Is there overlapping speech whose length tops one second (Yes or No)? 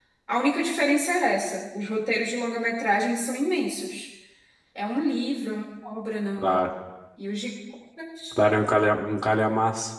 No